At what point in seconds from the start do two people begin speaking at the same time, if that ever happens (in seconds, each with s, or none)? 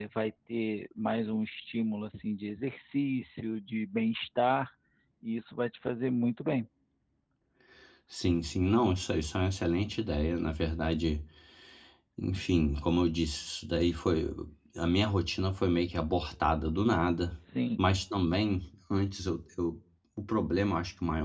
none